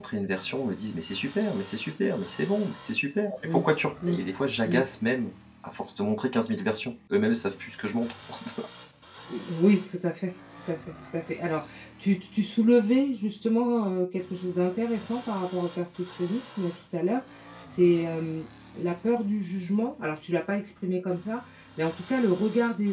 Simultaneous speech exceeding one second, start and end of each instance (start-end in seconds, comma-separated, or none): none